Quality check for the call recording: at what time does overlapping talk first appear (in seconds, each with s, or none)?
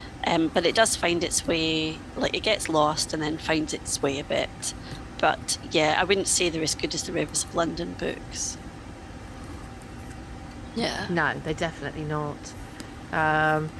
none